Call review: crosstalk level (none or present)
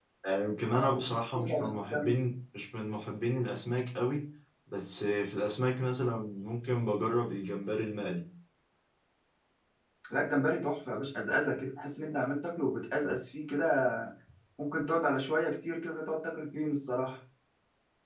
present